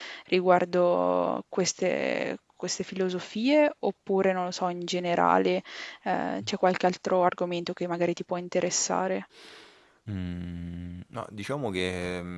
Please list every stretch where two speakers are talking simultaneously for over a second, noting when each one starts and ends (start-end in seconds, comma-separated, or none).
none